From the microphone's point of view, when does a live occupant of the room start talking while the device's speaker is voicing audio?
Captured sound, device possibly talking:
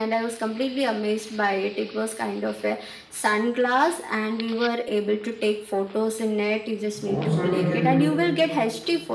6.9 s

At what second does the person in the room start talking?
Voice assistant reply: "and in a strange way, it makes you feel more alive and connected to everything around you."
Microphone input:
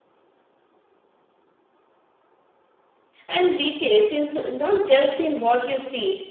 3.3 s

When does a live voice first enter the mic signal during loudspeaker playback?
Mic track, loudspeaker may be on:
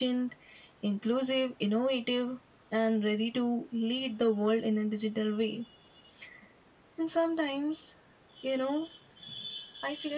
none

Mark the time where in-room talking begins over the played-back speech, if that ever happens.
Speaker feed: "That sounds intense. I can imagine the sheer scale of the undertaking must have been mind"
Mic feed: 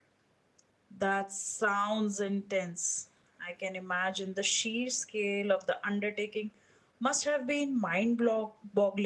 none

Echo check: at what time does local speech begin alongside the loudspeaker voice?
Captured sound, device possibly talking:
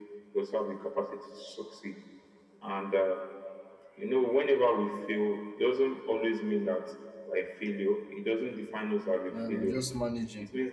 9.3 s

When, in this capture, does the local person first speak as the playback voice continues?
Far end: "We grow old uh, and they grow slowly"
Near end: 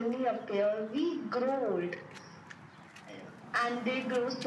none

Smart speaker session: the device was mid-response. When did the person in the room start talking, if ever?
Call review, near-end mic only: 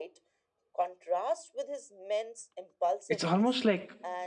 3.1 s

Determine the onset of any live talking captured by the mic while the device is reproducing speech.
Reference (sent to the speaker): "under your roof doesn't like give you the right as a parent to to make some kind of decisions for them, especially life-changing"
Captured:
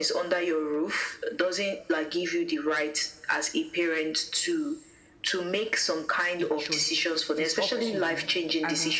6.4 s

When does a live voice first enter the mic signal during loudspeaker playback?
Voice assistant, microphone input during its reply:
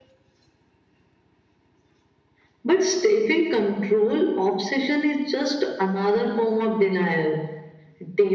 none

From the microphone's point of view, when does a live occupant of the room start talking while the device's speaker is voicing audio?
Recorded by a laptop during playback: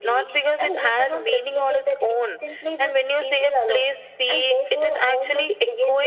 none

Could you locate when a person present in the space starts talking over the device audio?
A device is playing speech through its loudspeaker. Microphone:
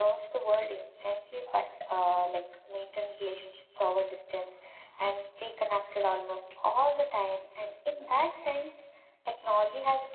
none

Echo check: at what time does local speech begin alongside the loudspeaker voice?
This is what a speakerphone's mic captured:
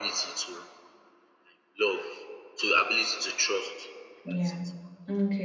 4.2 s

